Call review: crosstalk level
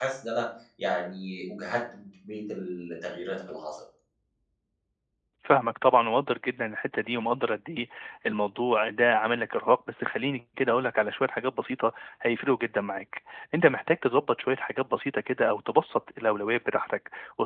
none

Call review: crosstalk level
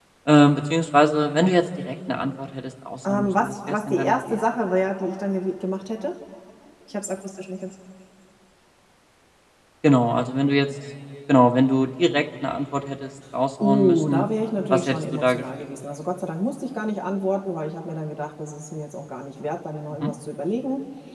present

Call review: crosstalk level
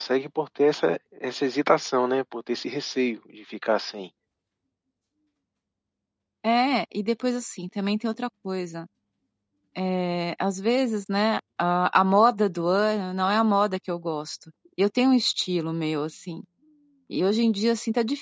none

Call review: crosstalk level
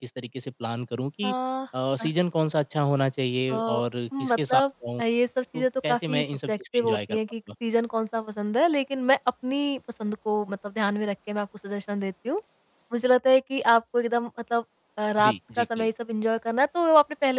present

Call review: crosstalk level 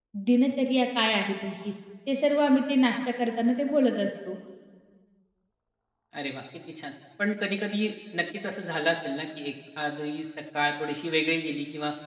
none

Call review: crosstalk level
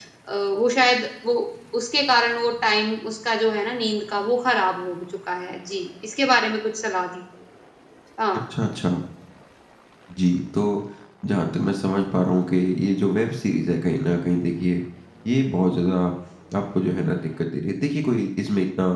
none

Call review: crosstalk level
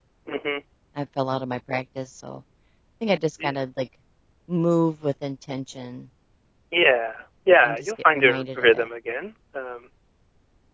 present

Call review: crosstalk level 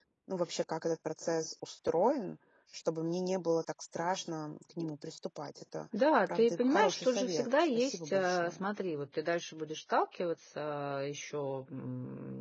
present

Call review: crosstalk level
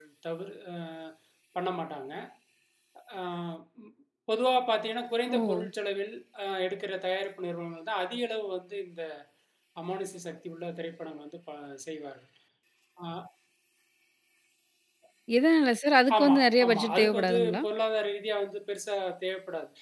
present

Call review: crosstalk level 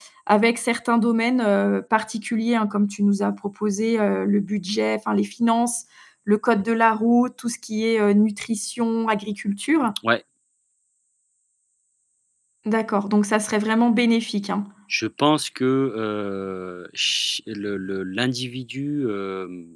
none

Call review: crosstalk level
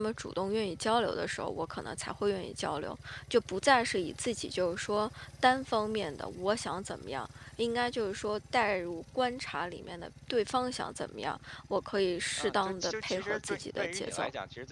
present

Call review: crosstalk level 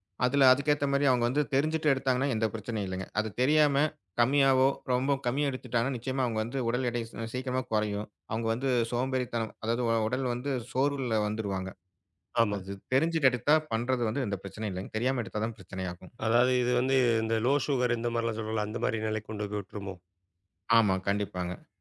none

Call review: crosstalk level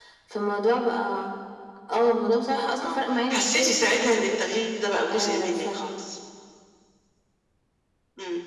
present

